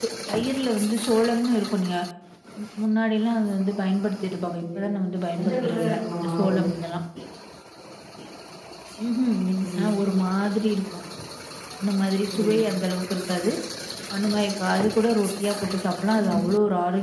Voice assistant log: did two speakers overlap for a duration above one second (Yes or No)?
Yes